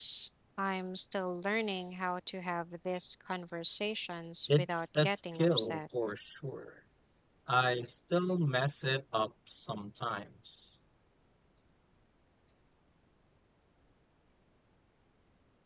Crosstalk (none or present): present